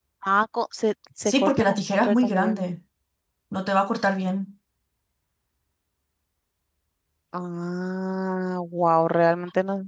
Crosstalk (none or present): present